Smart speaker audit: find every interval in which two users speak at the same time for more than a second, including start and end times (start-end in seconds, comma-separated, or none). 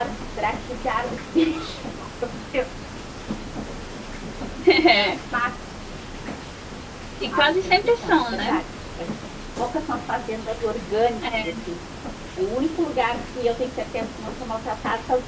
7.3-8.5